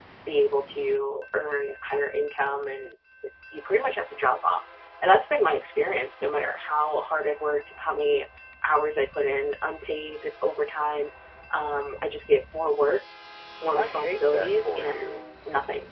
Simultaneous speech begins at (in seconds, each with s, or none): 13.8 s